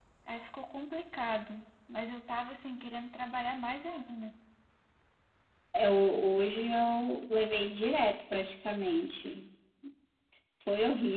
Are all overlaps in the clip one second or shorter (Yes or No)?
Yes